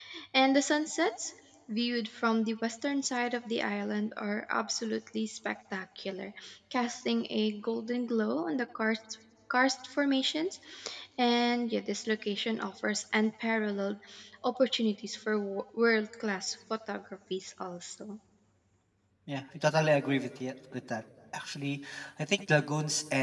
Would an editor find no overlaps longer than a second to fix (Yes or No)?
Yes